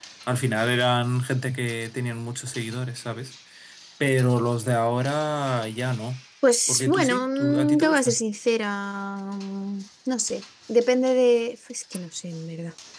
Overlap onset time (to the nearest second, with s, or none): 7 s